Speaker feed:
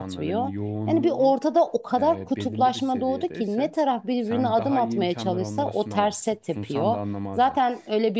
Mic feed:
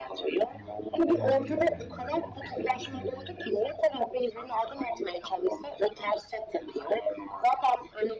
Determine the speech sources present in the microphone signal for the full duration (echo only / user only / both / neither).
both